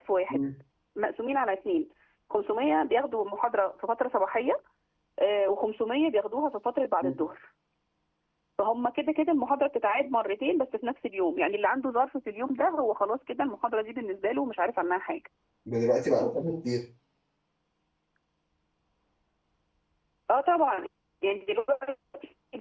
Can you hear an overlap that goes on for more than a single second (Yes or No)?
No